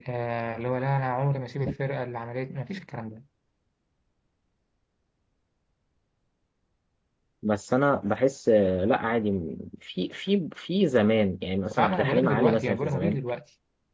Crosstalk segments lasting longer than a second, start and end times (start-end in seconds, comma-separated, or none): 11.8-13.2